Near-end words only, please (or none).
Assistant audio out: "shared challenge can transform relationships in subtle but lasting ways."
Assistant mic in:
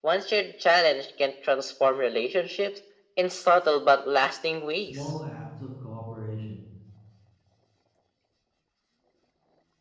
Small acts of cooperation,